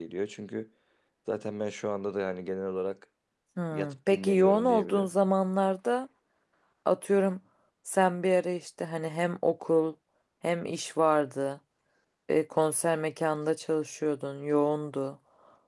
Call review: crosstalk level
present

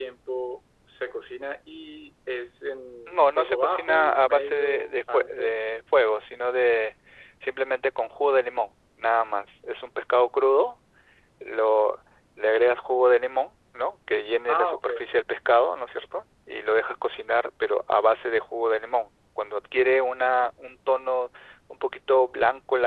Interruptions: present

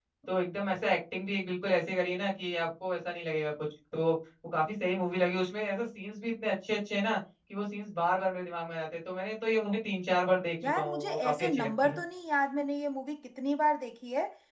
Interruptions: present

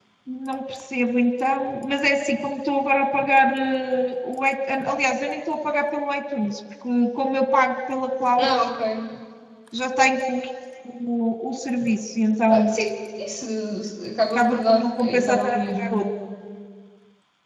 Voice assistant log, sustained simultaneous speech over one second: present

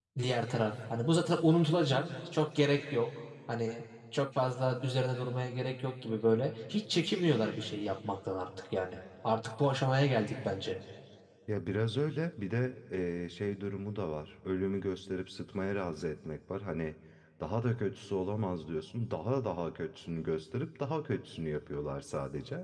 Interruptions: none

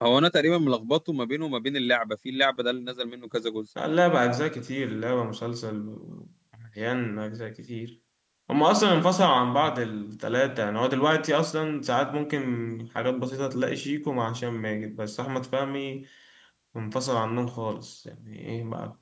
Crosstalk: none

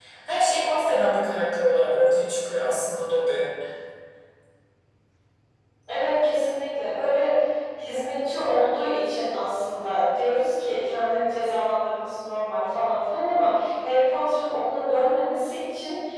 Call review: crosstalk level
none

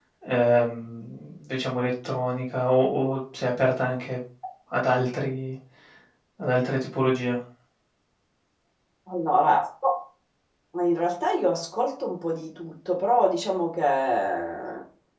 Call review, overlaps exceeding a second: none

